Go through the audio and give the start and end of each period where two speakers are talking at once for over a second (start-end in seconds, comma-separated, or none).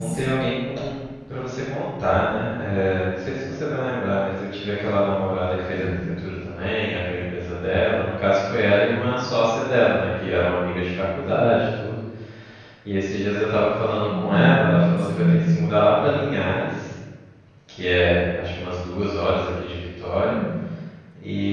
14.1-15.5